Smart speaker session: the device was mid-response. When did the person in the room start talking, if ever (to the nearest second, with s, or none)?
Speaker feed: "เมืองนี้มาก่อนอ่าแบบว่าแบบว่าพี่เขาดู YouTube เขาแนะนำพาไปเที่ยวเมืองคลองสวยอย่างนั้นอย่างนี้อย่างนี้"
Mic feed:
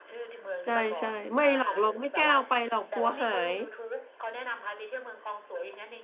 1 s